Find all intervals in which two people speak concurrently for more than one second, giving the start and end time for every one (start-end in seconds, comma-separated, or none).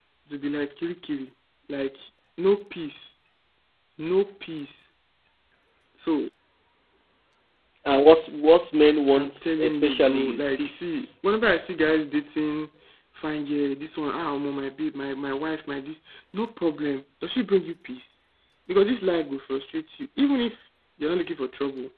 9.1-11.1